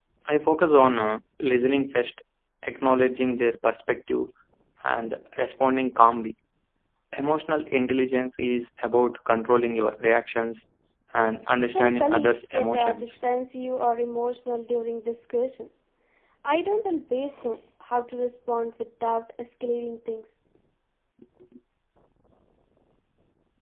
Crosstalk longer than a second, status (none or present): present